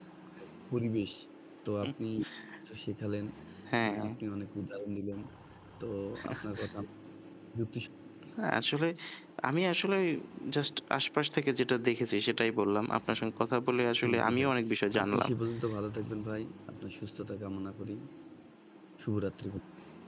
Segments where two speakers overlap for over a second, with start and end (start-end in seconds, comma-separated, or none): none